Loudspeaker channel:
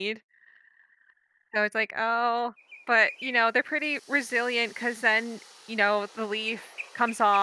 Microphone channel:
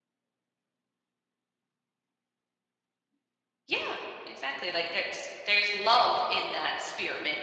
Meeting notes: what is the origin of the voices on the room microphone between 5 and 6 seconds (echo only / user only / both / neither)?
user only